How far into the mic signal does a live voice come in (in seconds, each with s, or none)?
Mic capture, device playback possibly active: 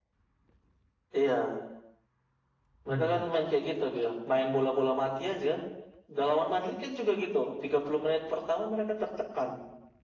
2.9 s